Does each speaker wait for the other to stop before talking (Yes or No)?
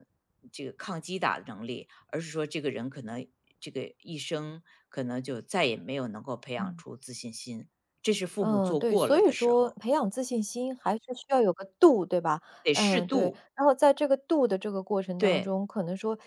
No